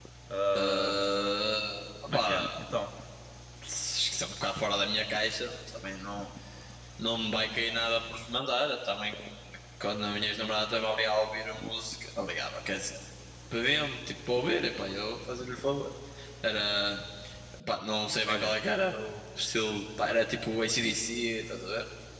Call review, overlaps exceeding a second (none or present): none